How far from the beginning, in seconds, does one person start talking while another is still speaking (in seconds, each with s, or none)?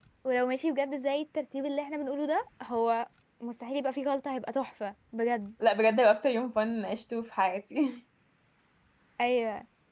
none